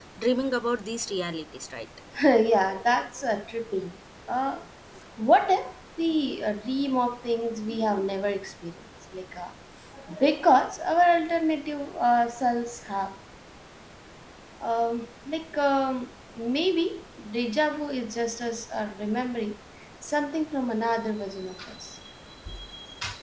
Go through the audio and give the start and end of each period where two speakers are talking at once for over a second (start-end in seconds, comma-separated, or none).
none